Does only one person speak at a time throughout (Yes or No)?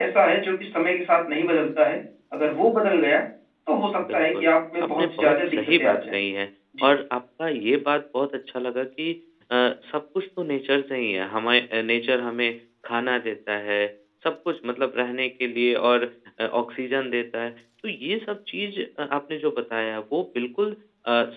No